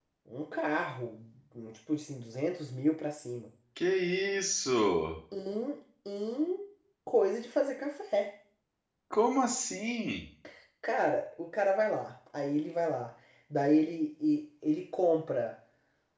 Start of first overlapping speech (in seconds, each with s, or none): none